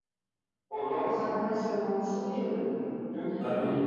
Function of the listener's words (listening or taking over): listening